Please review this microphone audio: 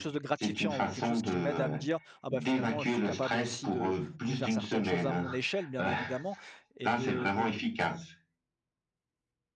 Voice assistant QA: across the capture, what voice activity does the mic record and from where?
both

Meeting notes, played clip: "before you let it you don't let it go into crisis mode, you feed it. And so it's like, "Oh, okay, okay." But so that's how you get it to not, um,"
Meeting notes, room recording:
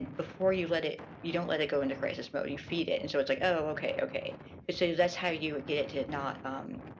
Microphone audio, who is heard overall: echo only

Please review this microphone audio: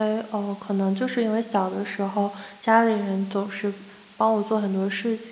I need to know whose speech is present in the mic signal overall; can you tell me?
user only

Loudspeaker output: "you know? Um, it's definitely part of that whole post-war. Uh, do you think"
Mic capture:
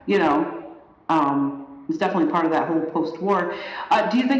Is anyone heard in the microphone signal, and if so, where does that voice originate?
echo only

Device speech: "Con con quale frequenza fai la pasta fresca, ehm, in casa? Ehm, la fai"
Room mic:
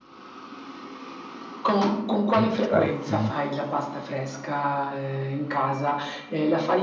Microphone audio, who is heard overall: both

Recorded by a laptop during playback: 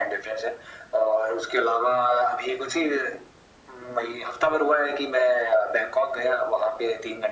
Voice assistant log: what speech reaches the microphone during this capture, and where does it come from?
echo only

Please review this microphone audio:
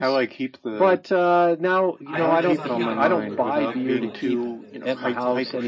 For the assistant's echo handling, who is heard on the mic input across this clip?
both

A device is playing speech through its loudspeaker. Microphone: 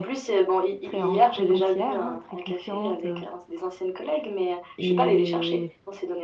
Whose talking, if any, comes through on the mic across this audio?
both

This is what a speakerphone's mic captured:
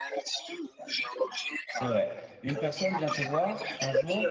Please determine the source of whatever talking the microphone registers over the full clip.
both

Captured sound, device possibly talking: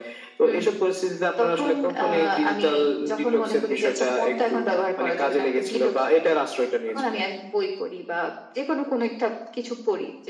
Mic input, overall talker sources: echo only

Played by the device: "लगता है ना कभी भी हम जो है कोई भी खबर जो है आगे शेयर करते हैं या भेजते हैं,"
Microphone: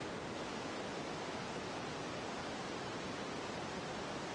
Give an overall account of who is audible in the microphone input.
neither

